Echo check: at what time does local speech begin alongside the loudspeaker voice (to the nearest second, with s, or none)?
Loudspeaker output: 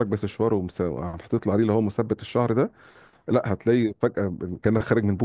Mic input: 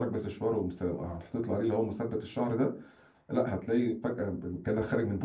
none